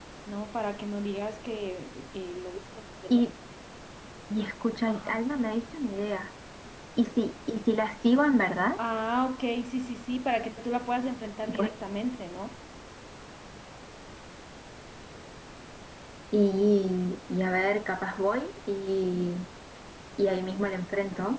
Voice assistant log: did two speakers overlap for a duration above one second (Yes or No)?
No